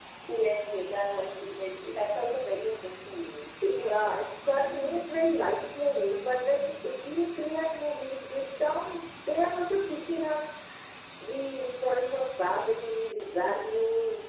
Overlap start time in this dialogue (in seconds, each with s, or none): none